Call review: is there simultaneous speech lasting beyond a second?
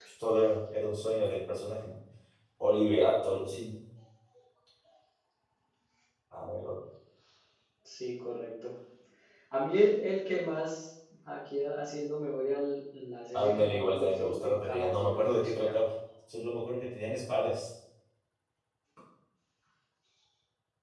Yes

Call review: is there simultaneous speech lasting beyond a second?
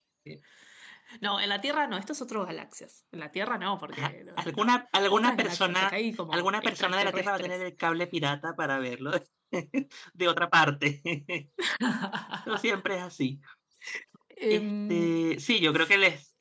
Yes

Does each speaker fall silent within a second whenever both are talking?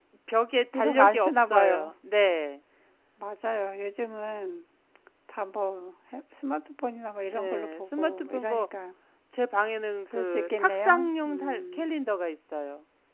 No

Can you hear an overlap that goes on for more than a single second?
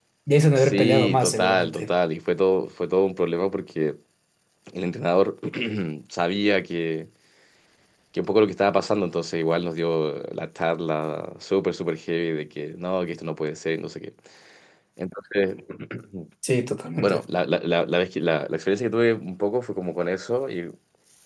Yes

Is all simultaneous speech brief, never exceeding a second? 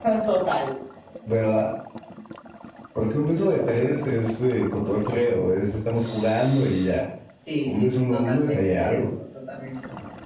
No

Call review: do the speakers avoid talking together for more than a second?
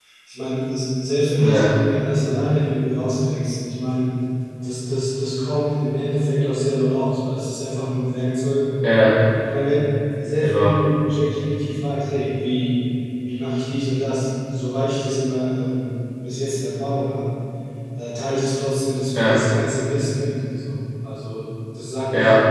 Yes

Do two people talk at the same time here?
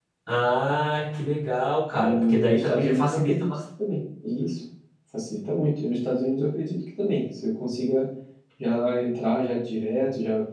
Yes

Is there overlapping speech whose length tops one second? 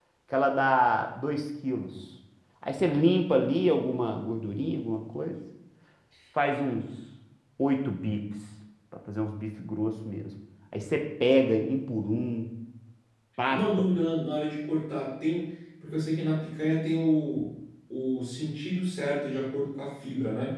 No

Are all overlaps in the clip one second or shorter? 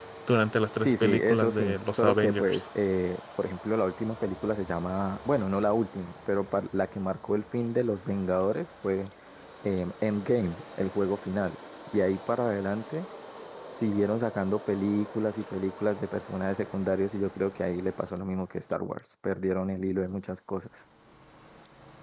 No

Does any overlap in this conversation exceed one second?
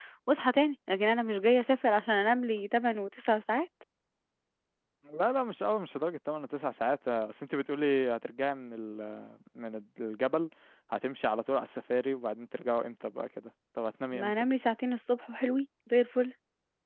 No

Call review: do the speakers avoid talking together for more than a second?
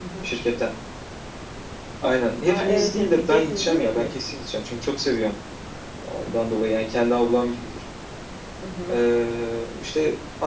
No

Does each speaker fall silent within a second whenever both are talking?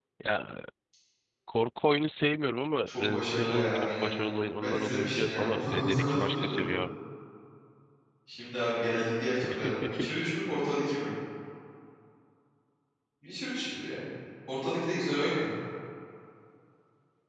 No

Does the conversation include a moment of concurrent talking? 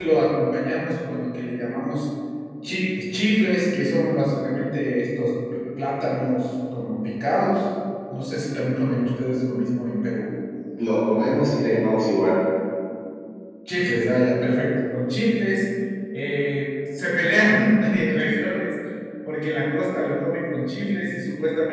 No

